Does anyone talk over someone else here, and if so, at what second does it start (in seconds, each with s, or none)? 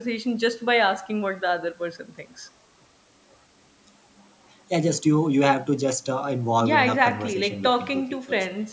6.6 s